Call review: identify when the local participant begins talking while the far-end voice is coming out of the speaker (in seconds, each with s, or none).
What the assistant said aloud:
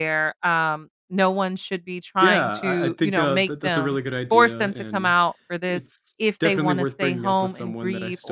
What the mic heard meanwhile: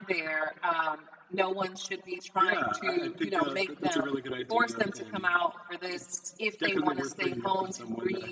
none